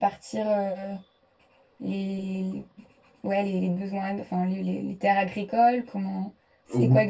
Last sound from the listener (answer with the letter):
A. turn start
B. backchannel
A